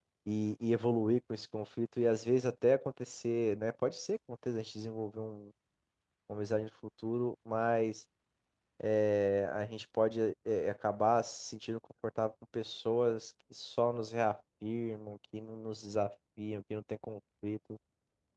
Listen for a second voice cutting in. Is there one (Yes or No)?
No